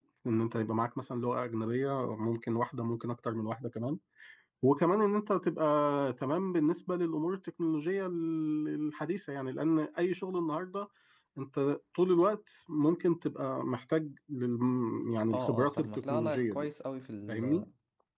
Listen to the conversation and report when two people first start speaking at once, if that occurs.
15.3 s

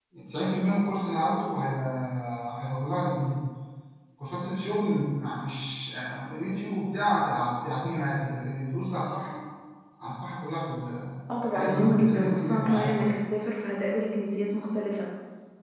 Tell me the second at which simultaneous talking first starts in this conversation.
11.3 s

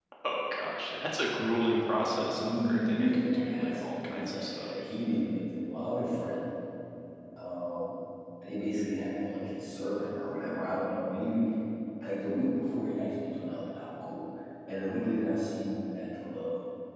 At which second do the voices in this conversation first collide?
1.9 s

